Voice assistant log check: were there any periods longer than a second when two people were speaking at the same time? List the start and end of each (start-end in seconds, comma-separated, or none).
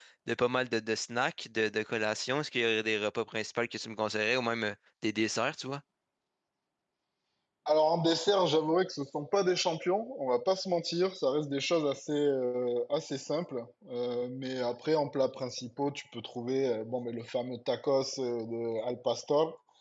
none